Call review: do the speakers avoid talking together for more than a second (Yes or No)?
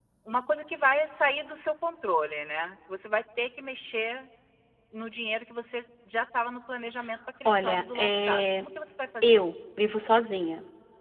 No